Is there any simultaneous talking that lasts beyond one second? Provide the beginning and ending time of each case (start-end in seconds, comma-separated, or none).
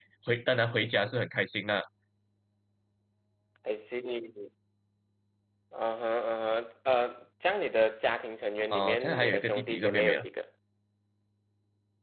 8.7-10.2